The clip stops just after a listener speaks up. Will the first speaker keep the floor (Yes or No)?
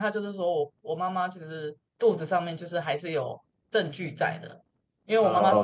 No